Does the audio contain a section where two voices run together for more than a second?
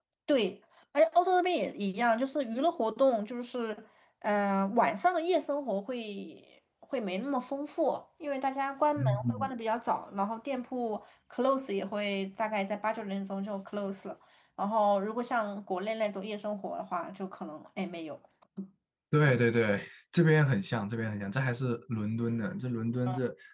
No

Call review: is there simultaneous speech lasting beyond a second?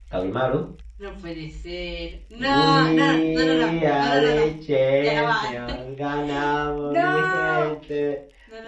Yes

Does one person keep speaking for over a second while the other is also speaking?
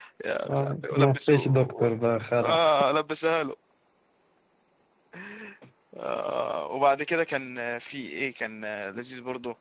Yes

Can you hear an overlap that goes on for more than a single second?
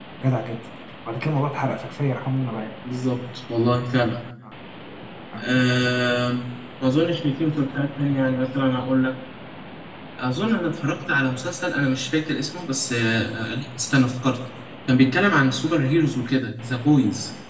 No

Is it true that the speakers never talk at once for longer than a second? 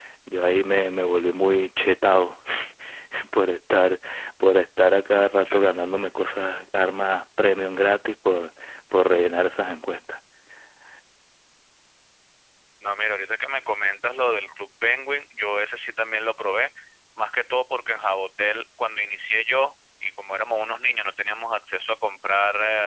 Yes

